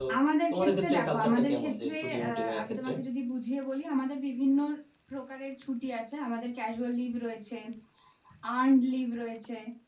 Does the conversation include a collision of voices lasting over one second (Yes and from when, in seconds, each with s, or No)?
Yes, from 0.5 s